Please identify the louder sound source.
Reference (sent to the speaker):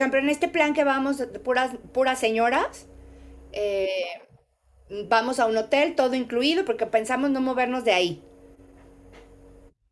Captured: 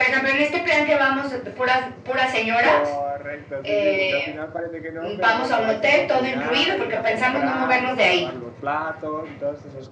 echo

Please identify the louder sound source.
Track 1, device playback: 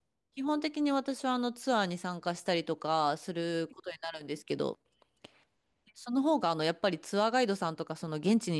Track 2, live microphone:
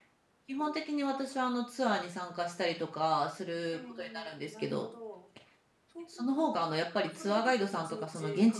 echo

